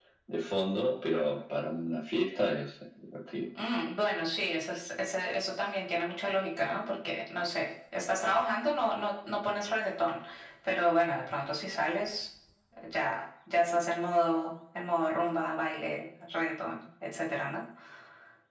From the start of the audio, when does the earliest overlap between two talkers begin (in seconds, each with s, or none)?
none